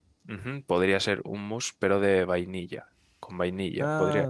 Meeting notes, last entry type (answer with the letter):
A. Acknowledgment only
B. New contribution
A